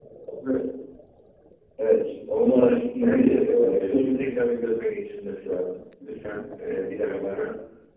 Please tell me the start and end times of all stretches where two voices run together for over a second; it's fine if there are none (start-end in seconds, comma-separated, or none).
3.0-4.3